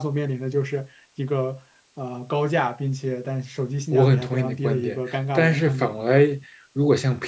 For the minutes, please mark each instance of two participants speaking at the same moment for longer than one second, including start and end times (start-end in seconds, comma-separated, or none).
3.9-6.0